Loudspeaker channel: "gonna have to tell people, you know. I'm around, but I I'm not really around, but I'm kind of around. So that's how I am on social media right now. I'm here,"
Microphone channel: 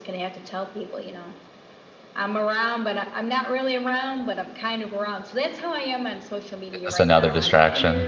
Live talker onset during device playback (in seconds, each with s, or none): 6.7 s